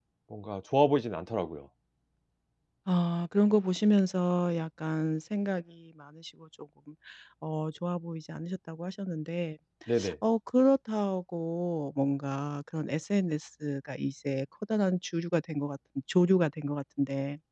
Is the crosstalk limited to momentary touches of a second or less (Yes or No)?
Yes